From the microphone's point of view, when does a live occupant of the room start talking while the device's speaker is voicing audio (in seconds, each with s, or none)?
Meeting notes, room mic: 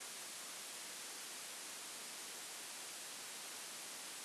none